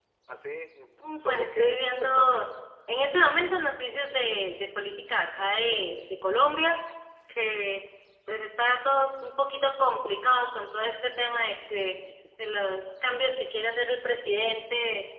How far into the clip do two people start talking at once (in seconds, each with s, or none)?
1.2 s